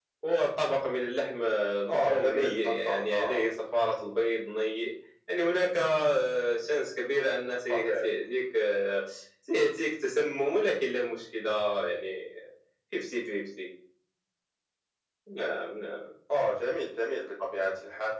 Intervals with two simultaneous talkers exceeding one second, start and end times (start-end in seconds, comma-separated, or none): 1.9-3.4